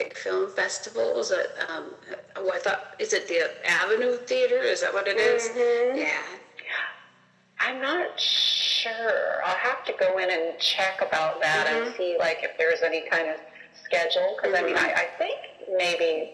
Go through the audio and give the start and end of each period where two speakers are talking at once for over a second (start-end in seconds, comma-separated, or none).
none